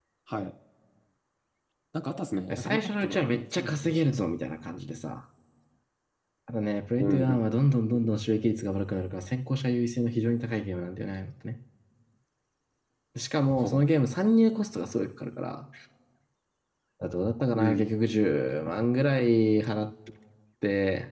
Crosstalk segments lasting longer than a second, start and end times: 2.6-4.2

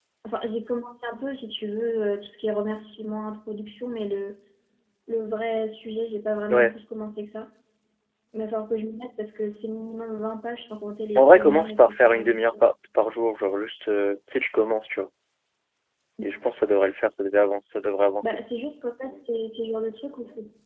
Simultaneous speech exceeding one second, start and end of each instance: 11.2-12.6

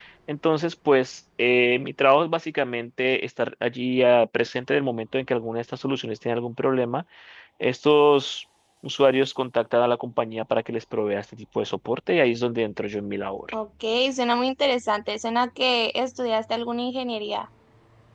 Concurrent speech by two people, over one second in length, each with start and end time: none

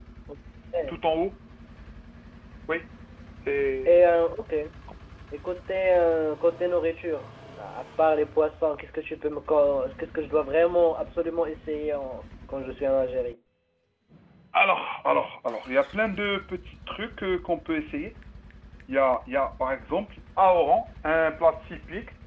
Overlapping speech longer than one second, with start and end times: none

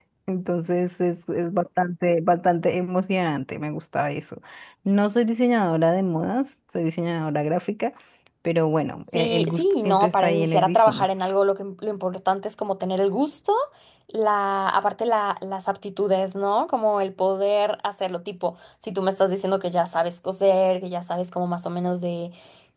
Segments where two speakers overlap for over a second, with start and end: 9.1-11.1

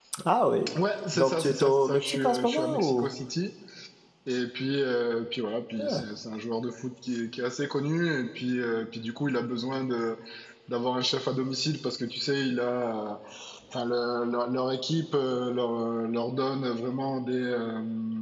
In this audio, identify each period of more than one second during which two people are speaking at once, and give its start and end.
1.1-3.1

